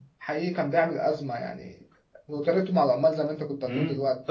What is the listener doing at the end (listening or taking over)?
taking over